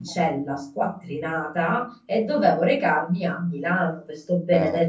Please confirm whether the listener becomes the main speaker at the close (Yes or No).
No